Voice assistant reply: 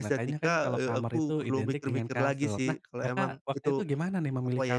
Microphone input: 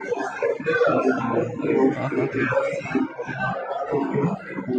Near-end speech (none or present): present